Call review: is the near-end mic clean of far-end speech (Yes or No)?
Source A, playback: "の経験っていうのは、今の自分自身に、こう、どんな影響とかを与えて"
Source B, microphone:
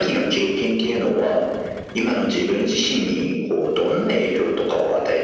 No